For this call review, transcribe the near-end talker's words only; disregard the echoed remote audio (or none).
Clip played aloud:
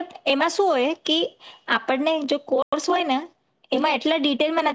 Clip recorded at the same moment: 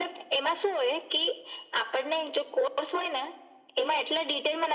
none